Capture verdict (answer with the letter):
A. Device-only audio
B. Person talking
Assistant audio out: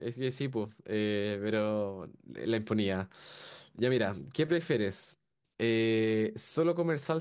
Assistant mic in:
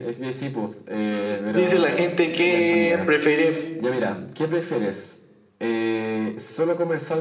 B